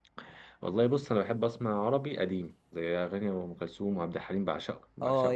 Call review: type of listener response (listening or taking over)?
taking over